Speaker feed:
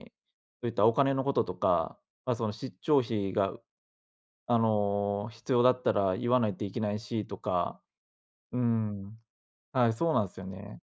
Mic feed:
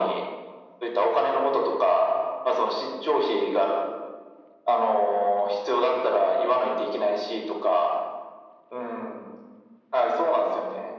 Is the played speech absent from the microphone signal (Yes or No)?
No